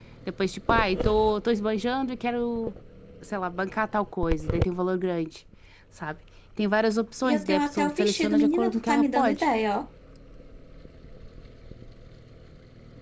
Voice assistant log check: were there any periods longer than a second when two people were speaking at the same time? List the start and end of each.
7.2-9.4

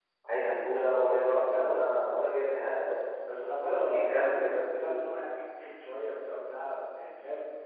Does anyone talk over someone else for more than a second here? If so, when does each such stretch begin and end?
3.6-5.0

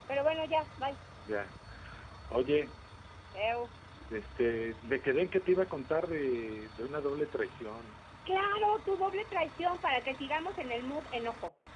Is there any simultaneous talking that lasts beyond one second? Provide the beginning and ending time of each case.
none

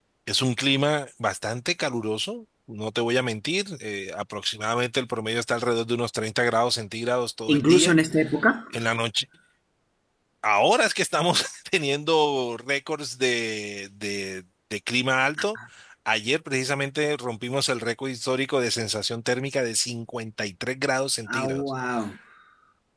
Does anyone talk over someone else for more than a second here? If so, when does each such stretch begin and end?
none

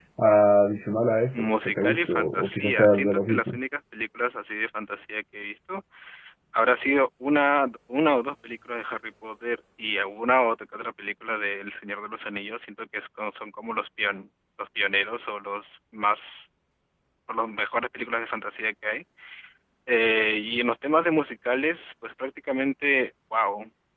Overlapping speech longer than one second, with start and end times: 1.3-3.6

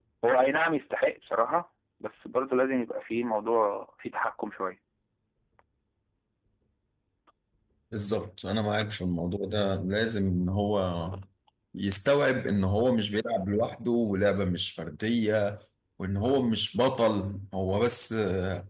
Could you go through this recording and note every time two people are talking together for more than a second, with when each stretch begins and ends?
none

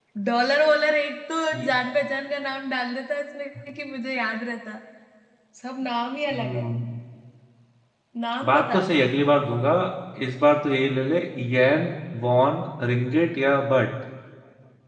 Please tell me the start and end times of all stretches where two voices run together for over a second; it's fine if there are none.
none

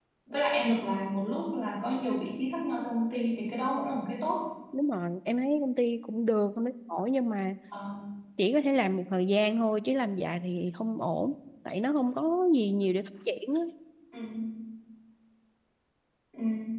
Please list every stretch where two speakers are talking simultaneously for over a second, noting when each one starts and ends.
none

